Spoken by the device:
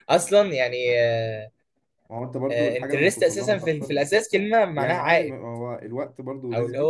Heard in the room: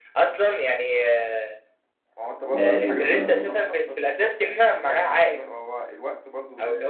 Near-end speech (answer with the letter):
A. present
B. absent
A